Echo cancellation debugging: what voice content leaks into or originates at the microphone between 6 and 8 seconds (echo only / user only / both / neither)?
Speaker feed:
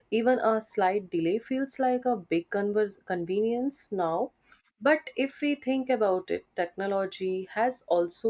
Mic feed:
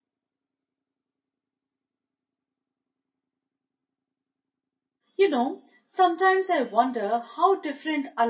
user only